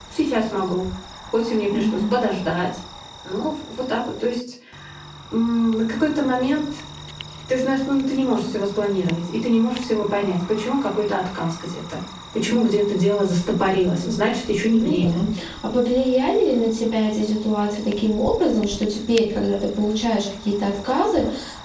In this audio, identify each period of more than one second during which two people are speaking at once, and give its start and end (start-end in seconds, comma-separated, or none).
none